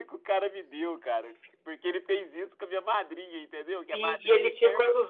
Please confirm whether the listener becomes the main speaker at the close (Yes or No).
Yes